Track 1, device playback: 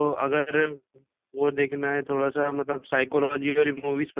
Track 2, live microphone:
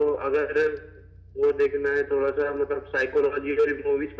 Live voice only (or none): none